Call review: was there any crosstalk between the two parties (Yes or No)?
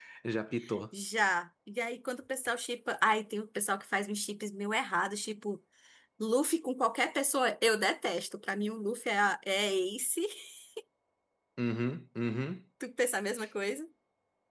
No